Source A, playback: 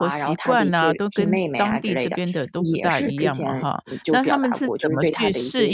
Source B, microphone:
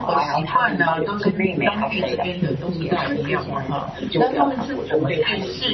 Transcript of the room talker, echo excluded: none

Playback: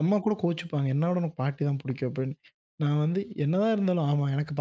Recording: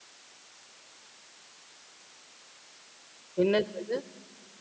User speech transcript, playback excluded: என்னது?

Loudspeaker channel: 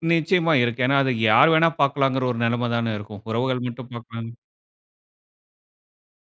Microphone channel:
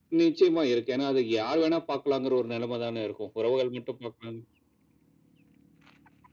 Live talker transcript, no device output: none

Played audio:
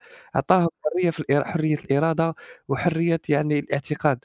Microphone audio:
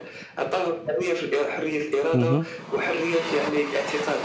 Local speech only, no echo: مهم،

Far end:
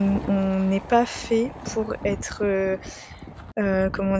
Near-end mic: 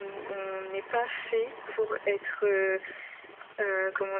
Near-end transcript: none

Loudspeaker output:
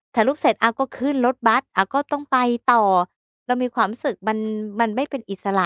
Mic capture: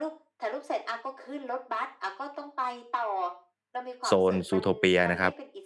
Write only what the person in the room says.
โซน Zootopia นะครับ

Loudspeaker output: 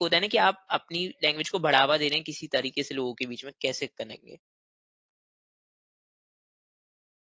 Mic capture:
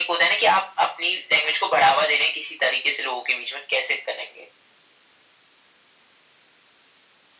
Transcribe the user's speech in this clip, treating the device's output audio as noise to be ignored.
none

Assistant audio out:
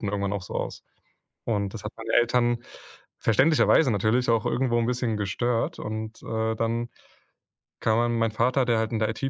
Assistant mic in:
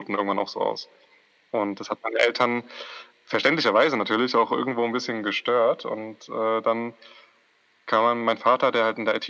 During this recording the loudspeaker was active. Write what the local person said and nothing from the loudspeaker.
none

